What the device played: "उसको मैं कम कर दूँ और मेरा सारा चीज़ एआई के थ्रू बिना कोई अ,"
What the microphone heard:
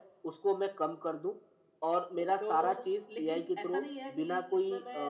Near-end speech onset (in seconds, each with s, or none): 2.4 s